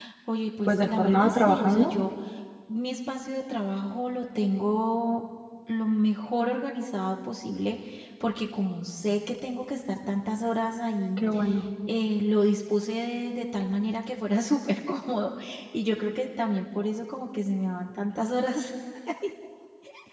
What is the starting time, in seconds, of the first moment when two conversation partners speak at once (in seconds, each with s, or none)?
0.7 s